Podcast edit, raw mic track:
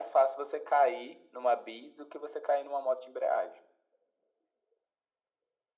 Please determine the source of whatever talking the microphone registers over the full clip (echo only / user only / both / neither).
echo only